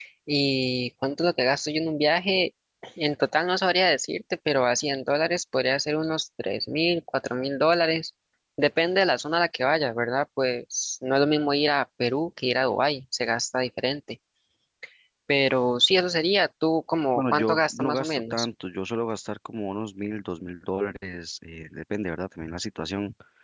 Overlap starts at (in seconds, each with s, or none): 17.1 s